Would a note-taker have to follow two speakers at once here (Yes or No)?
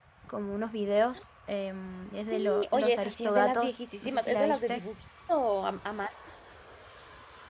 Yes